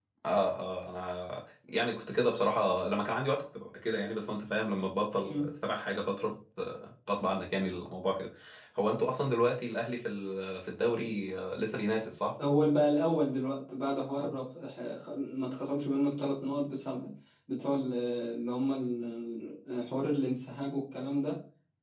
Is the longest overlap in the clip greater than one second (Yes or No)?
No